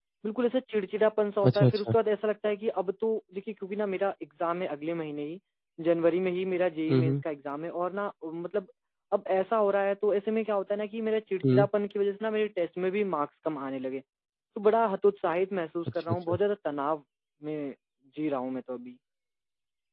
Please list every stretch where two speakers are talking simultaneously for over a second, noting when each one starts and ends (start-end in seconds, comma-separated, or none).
none